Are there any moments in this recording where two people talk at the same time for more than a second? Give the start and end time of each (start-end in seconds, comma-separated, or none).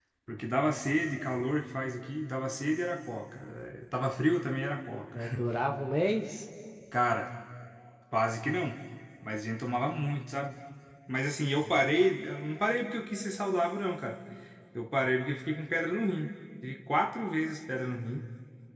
none